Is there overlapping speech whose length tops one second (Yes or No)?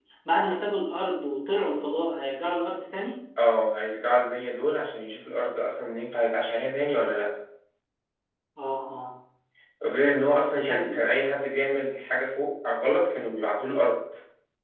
No